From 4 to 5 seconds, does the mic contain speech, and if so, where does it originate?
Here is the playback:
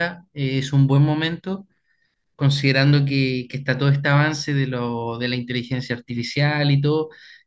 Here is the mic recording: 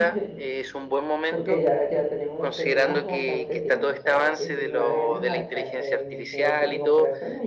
both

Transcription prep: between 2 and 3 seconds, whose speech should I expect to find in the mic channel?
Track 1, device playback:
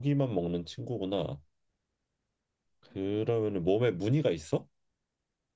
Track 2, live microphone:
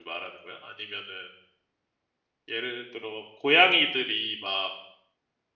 user only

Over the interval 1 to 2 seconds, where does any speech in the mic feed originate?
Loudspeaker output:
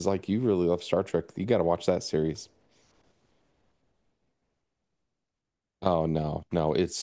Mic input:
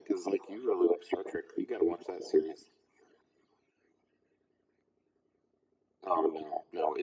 echo only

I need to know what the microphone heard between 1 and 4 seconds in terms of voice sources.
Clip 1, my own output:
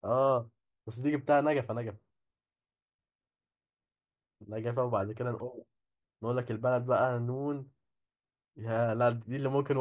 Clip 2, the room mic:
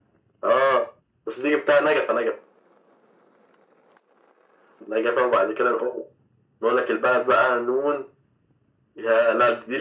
echo only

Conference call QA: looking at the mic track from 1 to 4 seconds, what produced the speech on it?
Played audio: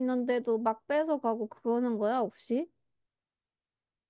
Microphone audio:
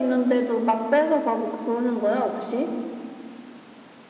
echo only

